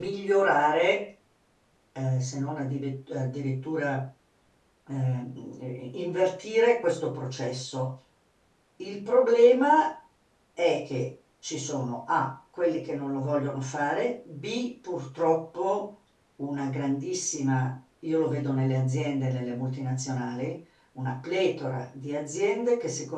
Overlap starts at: none

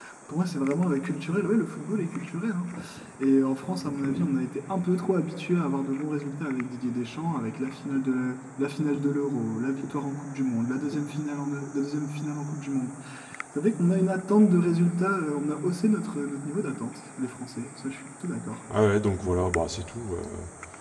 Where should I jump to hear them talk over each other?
none

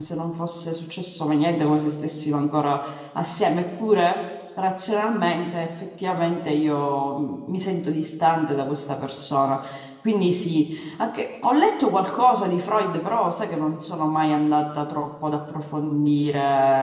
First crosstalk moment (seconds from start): none

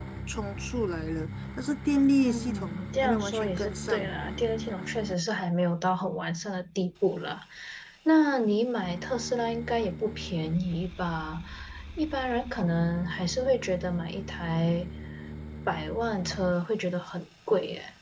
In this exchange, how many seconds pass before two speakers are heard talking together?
2.2 s

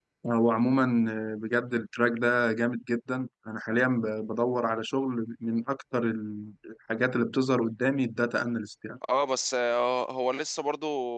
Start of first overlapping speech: none

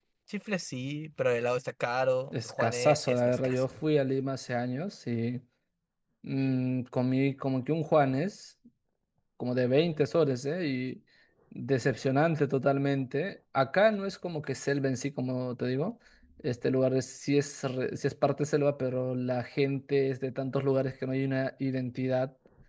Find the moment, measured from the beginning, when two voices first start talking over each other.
2.3 s

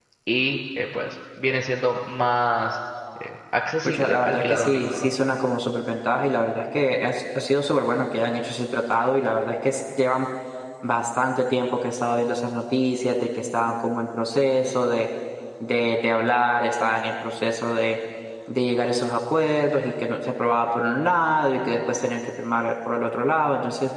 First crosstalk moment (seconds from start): 3.8 s

